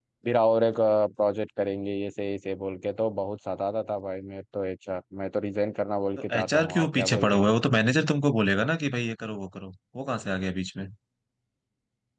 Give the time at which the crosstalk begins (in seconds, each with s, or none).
6.2 s